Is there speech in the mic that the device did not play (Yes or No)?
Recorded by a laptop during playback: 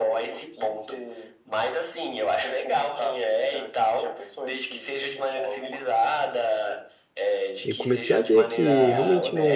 Yes